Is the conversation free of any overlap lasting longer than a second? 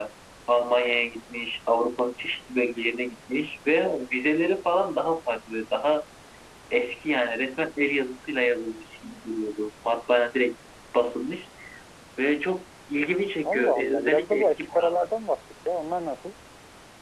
No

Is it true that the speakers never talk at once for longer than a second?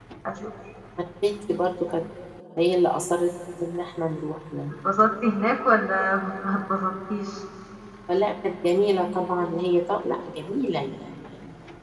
Yes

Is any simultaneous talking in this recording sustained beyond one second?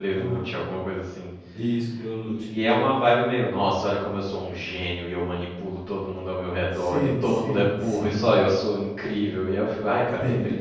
Yes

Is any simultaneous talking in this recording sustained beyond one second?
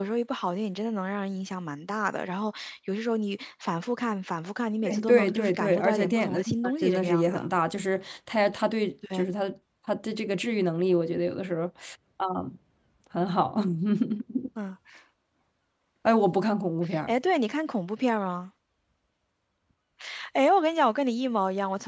Yes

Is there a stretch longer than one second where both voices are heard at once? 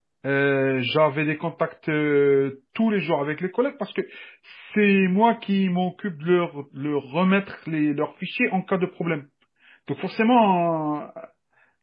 No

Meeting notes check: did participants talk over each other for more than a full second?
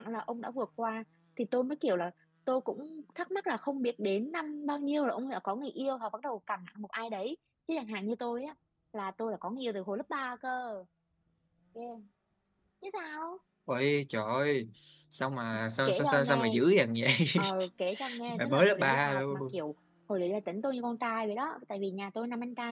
Yes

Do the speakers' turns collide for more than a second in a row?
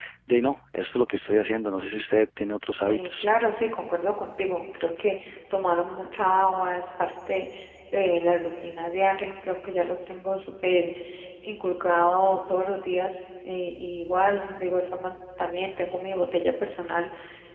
No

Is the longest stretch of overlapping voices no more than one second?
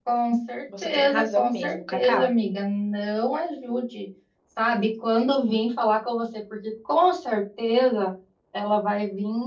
No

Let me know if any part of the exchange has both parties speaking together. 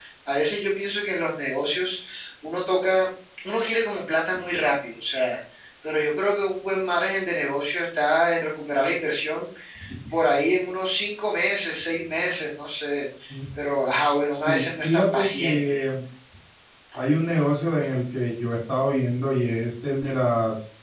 Yes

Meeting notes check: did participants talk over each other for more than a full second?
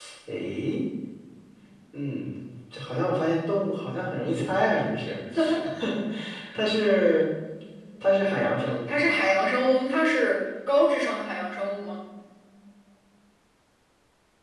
No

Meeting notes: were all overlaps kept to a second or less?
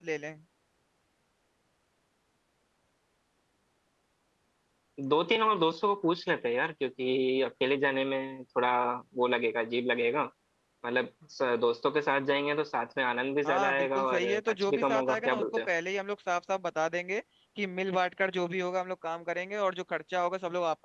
No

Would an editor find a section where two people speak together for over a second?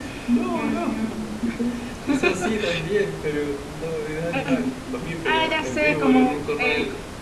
Yes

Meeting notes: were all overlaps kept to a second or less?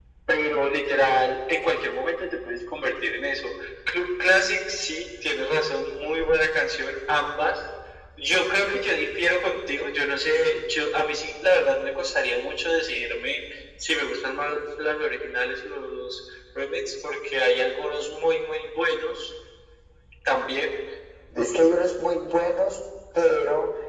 Yes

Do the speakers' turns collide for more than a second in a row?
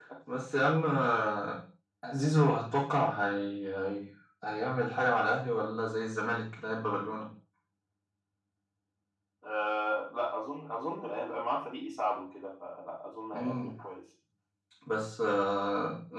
No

